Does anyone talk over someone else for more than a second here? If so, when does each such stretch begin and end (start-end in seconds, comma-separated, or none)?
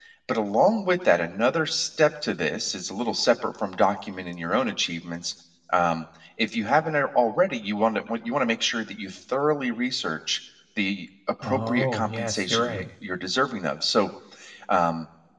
11.4-12.8